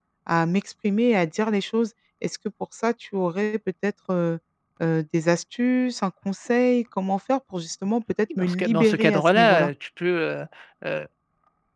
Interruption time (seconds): 8.3 s

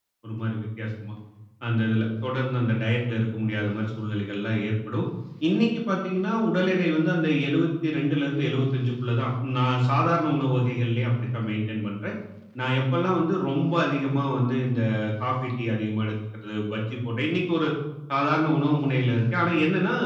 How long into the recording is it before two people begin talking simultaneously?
none

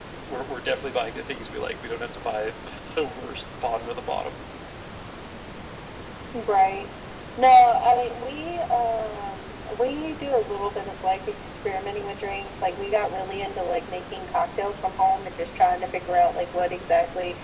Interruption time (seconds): none

